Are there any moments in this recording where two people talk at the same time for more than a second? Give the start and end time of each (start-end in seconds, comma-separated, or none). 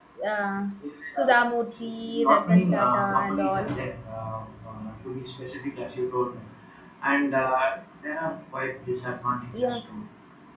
2.1-3.7